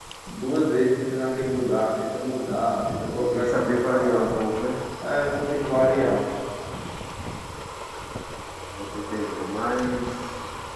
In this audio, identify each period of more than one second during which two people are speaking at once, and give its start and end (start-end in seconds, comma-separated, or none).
3.1-4.3